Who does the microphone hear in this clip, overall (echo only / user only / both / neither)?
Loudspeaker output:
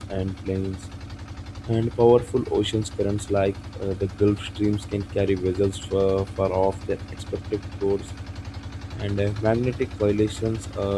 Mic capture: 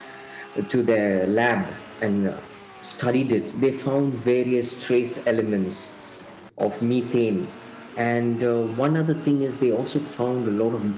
user only